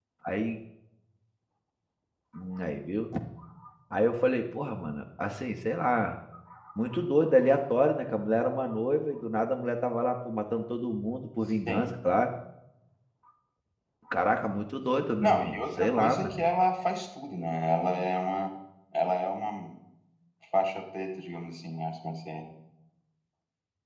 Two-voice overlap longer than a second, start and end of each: 15.2-16.4

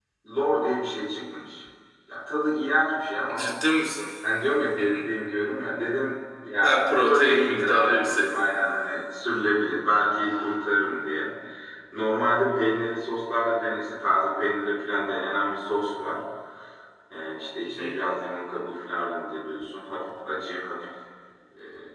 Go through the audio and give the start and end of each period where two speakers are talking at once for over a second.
6.6-8.5

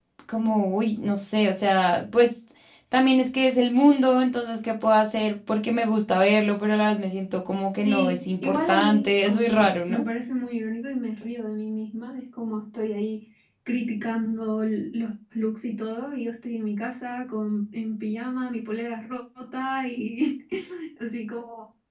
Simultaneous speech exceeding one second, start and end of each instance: 7.8-10.1

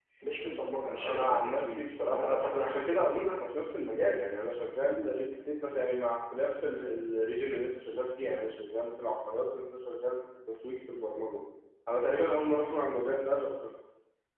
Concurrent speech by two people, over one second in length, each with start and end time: 1.0-3.1

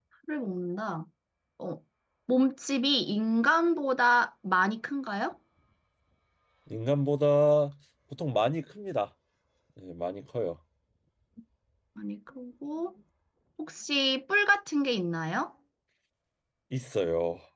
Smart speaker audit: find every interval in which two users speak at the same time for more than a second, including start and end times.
none

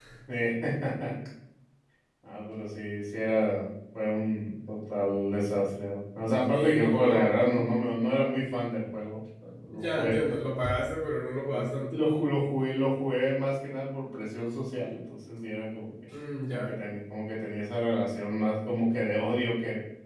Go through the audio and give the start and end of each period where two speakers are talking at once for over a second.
6.5-7.7

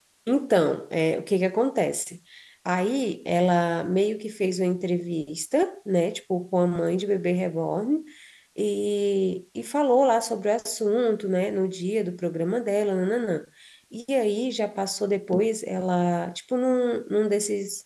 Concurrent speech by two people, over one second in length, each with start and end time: none

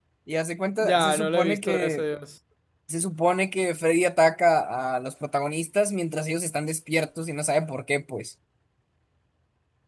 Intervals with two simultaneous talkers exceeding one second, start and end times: 0.8-2.0

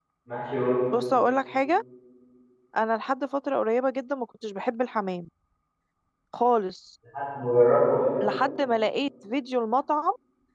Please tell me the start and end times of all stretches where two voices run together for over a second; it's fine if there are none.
none

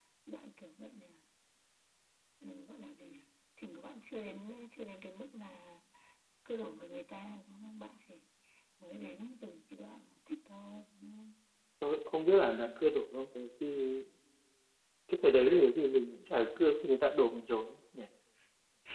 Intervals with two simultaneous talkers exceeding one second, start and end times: none

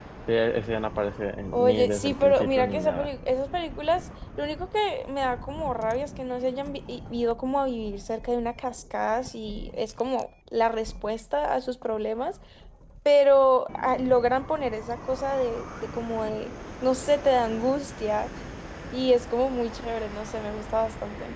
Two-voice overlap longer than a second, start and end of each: 1.5-3.1

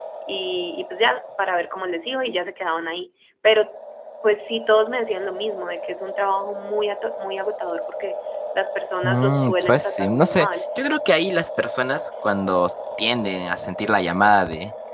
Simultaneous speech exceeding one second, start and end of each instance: 9.0-10.5

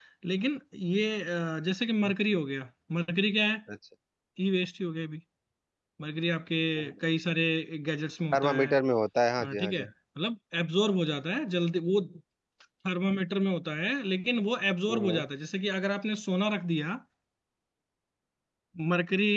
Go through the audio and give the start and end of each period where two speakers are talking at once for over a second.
none

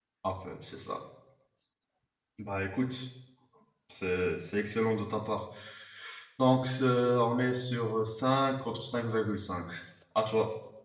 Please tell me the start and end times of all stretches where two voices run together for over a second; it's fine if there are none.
none

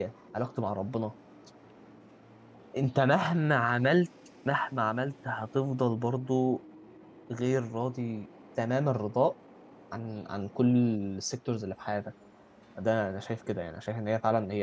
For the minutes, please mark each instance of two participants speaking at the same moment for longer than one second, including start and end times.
none

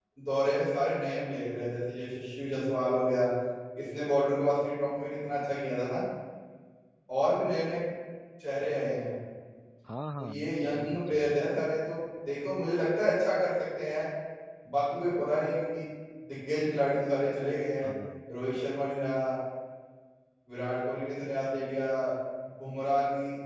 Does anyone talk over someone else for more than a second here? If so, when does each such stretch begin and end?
10.2-11.5

